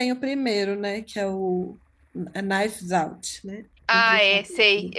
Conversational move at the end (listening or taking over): taking over